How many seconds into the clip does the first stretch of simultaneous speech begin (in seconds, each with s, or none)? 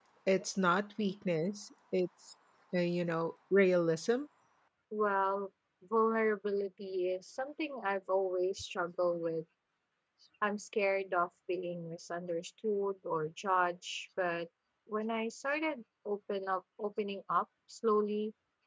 none